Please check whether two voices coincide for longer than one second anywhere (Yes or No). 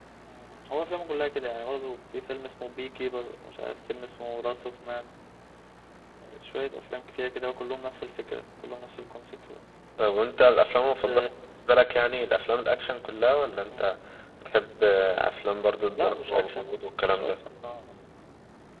Yes